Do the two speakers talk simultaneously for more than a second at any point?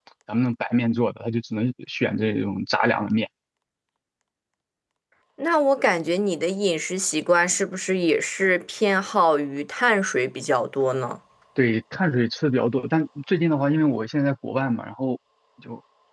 No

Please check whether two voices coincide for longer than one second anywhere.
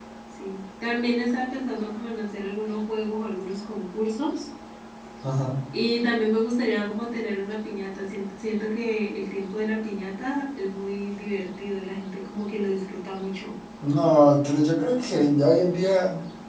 No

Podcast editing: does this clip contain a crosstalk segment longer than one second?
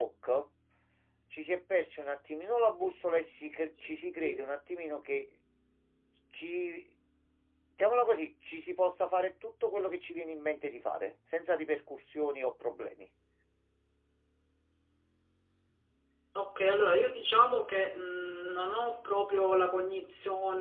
No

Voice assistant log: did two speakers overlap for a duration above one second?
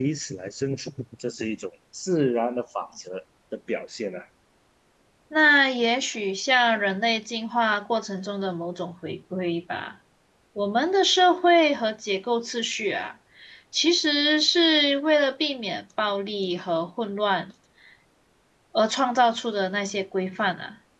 No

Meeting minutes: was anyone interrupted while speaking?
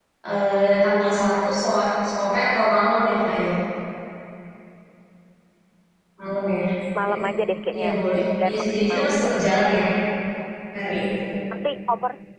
Yes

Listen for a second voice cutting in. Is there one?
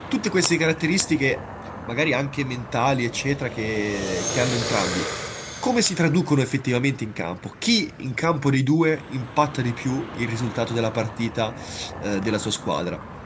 No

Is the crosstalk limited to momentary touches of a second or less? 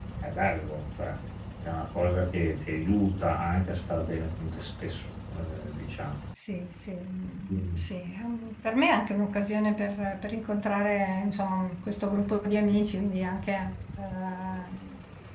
Yes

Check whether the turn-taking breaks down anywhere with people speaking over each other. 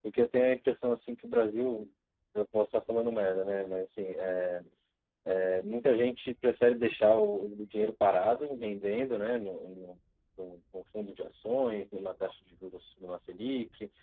No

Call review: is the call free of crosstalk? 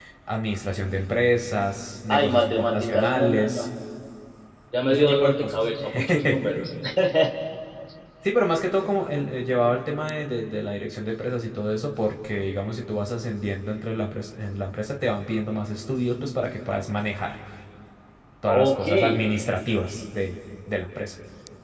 No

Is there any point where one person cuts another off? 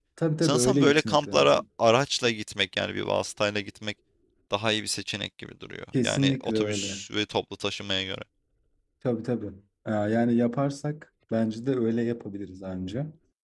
Yes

